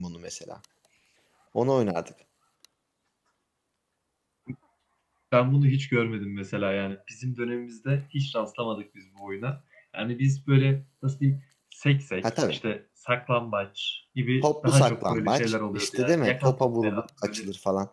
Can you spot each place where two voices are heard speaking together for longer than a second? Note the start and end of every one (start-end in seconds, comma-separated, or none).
14.4-17.4